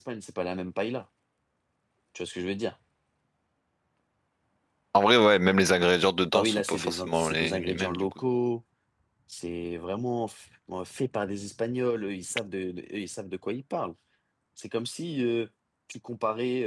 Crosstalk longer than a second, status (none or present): present